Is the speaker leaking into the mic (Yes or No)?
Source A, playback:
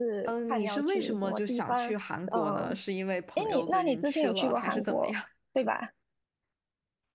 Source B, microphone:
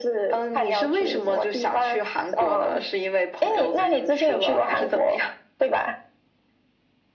Yes